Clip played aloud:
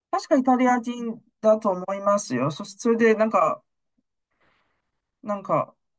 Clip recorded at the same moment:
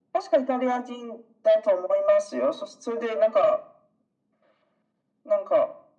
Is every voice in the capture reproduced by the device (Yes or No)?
Yes